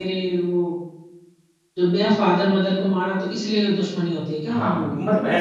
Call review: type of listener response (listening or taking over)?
taking over